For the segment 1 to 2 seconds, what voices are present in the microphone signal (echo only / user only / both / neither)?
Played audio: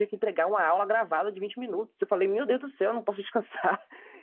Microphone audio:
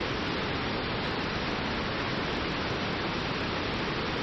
neither